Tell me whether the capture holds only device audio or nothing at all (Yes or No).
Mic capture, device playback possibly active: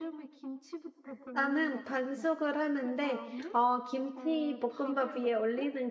No